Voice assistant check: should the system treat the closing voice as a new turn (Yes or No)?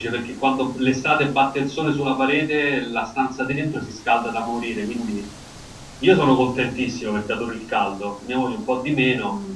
Yes